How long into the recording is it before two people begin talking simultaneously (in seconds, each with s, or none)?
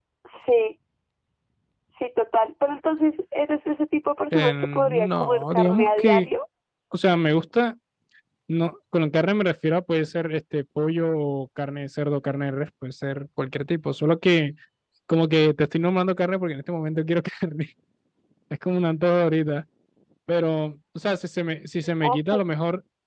4.3 s